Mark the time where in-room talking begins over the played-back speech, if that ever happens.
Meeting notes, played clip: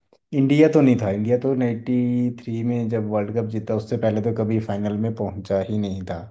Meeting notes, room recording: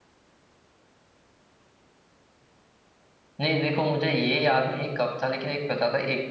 3.4 s

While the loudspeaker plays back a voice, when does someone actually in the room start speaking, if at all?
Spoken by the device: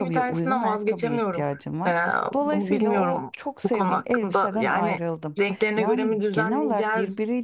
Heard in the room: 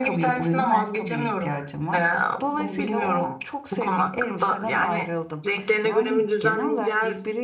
none

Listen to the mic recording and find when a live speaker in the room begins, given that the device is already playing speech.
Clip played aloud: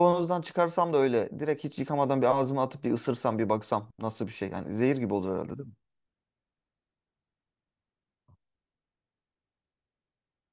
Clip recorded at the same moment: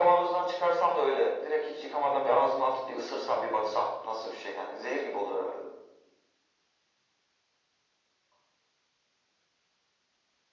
none

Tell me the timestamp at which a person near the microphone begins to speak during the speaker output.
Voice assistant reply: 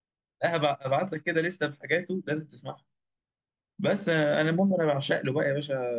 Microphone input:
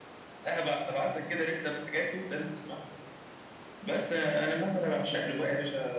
none

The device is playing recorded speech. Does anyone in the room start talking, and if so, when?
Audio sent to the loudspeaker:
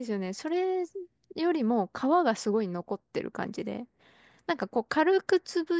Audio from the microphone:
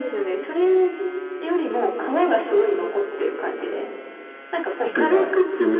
4.8 s

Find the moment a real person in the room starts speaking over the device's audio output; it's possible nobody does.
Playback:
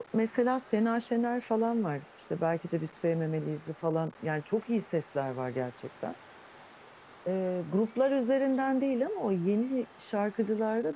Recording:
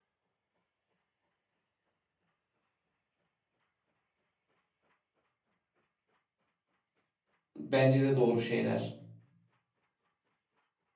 7.6 s

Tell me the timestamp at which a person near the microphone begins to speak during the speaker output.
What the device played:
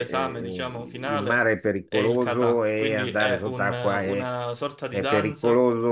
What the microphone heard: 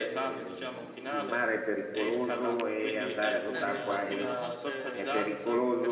3.5 s

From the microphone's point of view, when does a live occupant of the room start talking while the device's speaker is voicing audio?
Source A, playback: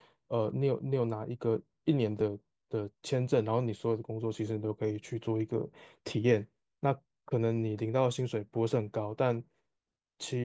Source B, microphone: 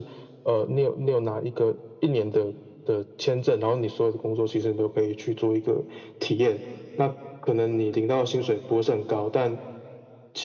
none

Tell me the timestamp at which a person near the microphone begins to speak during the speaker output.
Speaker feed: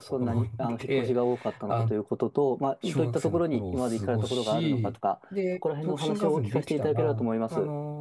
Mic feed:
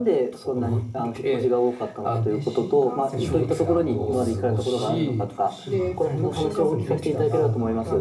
2.2 s

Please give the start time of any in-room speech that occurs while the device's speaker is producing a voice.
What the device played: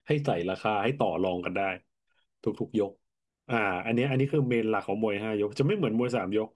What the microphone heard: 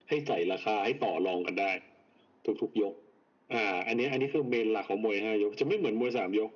none

